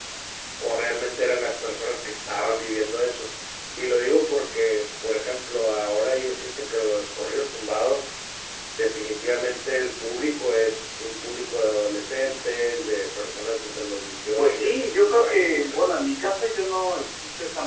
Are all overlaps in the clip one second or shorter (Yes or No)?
No